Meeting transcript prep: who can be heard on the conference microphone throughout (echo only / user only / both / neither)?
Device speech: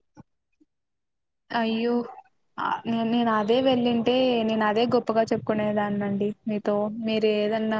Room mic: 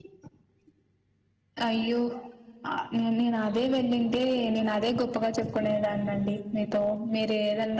echo only